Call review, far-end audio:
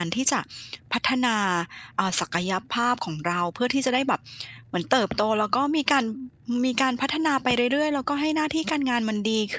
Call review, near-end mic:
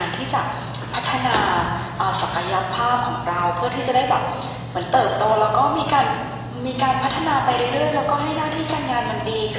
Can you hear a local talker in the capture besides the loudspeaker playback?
No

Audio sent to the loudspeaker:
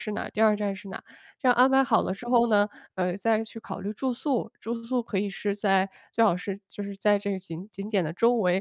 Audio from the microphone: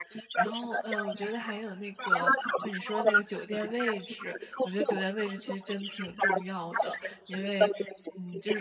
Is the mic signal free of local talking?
No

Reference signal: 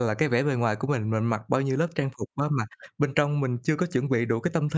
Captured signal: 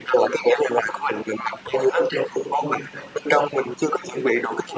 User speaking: No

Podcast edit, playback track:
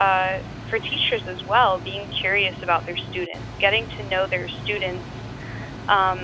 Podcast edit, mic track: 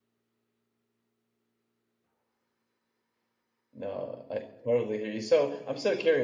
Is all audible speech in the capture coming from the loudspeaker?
No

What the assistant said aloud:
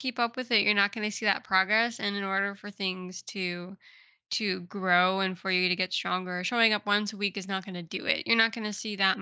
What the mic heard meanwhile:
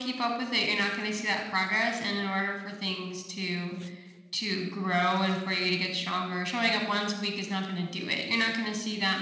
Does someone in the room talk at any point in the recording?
No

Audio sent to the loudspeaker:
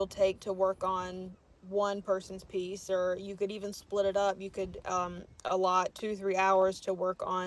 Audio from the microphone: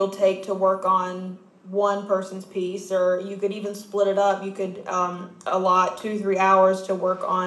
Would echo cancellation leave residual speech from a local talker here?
No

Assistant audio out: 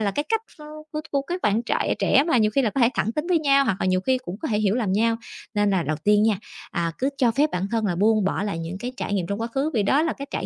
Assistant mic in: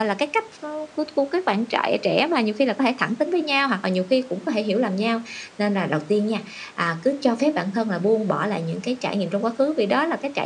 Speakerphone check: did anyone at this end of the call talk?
No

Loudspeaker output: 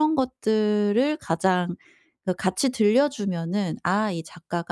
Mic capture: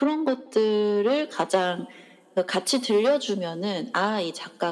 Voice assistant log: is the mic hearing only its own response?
Yes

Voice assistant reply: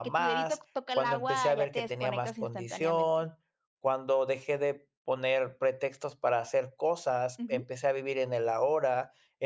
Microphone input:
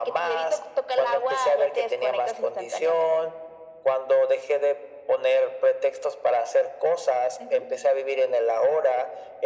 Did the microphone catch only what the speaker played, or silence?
Yes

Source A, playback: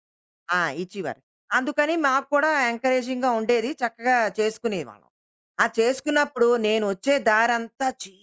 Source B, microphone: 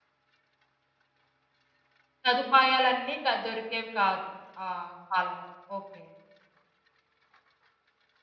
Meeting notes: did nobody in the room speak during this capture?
No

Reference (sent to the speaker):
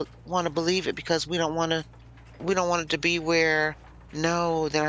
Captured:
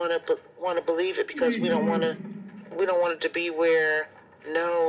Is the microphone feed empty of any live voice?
No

